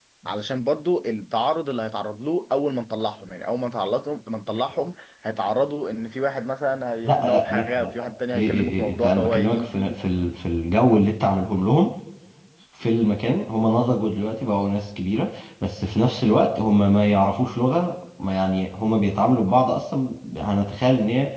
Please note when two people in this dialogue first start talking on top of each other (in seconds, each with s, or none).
7.0 s